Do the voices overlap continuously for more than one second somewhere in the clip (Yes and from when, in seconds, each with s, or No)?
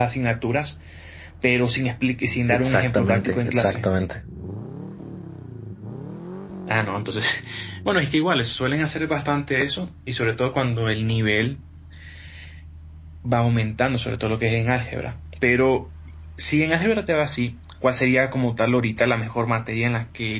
Yes, from 2.5 s